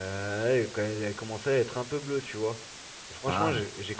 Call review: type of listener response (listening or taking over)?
listening